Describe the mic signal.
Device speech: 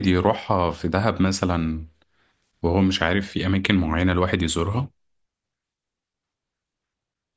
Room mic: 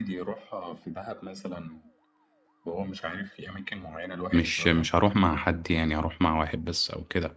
both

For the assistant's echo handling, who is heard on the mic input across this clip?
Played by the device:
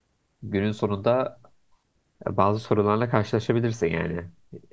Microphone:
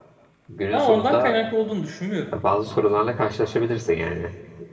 both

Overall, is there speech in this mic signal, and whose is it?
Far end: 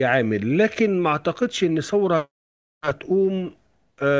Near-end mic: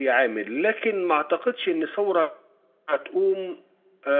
echo only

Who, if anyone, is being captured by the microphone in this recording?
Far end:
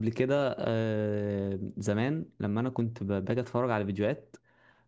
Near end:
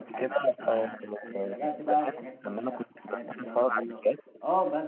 both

